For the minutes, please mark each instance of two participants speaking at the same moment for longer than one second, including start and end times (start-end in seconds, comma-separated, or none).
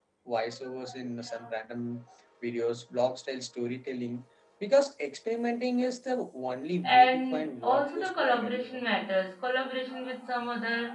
6.8-8.8